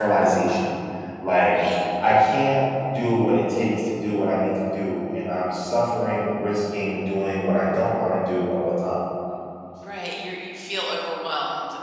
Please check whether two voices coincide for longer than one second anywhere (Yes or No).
No